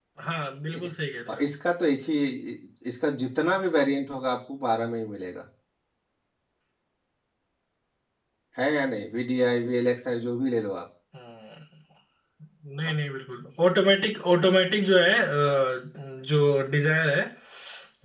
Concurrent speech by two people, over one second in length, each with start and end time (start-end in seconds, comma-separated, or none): none